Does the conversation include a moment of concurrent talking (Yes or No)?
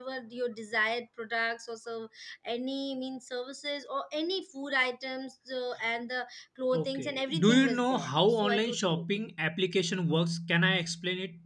Yes